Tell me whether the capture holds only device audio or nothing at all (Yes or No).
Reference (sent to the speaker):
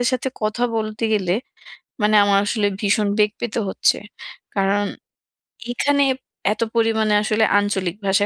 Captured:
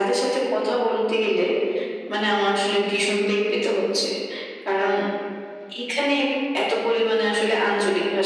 Yes